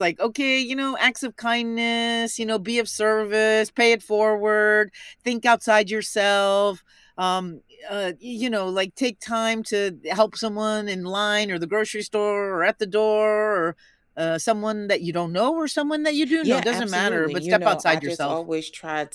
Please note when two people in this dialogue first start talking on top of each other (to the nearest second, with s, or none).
16 s